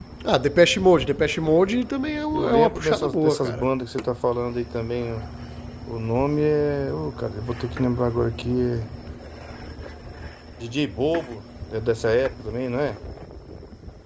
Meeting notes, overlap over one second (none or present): present